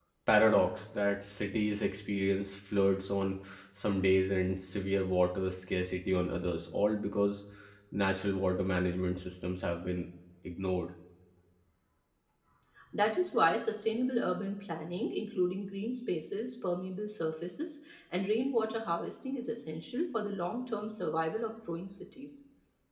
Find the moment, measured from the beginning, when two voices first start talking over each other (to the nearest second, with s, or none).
none